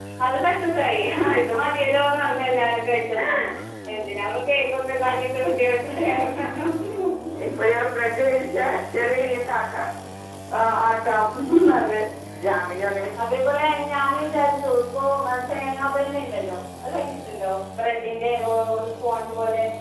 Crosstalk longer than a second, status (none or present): none